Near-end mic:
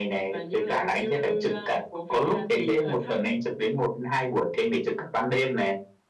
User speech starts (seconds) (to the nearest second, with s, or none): none